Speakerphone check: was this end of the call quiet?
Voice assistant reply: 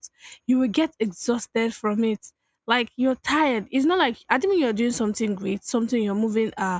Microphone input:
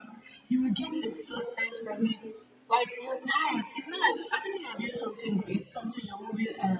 Yes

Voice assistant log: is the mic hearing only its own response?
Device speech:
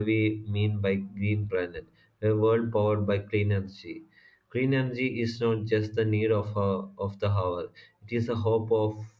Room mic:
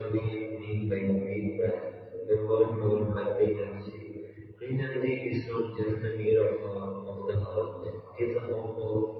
Yes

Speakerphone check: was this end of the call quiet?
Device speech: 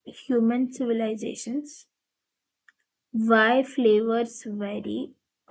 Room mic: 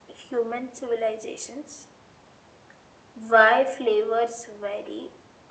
Yes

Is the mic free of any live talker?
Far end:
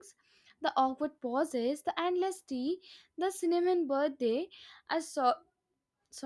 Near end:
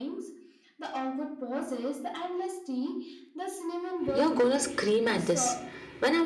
No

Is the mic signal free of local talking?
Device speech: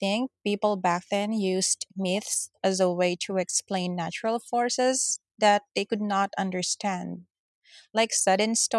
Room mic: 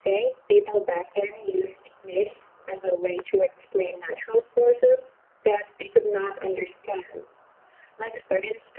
Yes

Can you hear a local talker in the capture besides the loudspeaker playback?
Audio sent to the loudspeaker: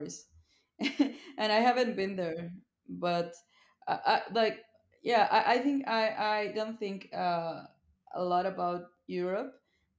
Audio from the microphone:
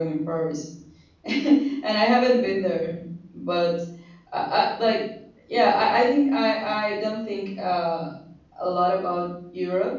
No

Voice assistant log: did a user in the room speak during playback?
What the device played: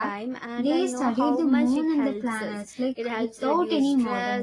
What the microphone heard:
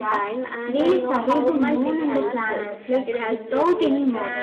Yes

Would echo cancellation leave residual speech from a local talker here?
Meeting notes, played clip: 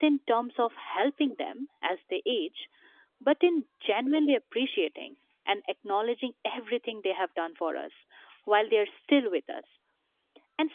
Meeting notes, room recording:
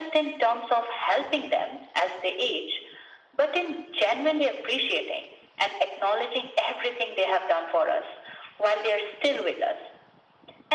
No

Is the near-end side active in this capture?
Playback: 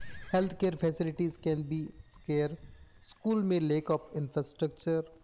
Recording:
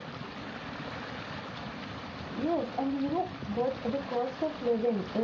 Yes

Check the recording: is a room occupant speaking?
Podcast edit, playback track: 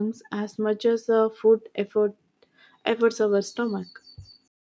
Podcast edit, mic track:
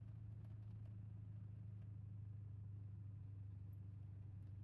No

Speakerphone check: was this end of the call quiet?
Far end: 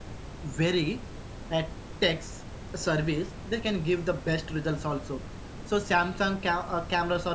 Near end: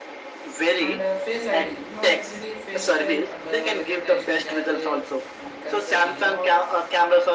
No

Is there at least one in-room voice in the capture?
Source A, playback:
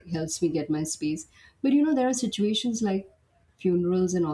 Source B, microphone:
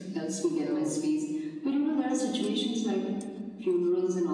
Yes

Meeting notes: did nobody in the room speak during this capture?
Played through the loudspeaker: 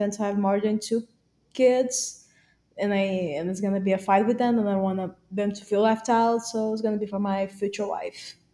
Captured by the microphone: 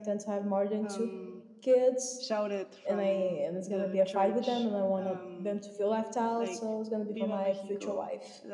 No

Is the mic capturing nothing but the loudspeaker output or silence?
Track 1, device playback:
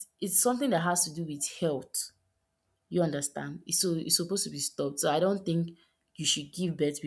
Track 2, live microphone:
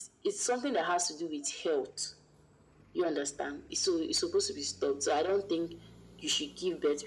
Yes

